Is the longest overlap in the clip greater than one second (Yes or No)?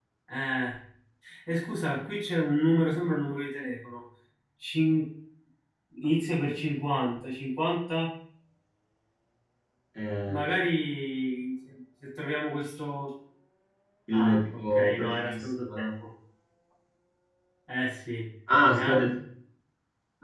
Yes